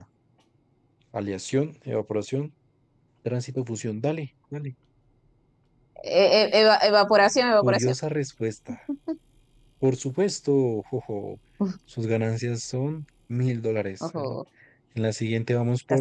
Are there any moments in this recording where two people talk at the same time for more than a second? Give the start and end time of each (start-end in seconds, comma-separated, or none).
none